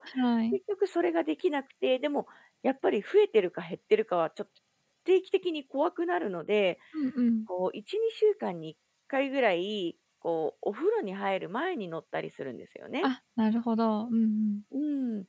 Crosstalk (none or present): none